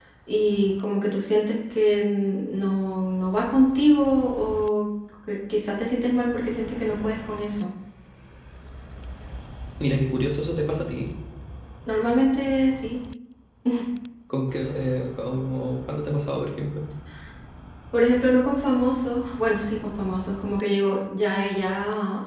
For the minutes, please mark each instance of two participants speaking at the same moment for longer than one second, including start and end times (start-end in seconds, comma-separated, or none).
none